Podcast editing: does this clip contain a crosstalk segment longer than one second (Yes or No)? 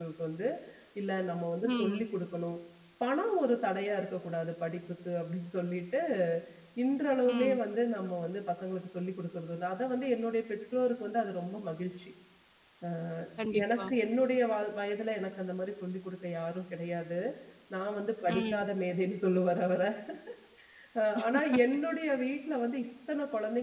No